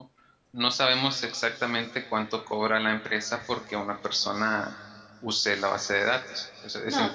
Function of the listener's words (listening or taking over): taking over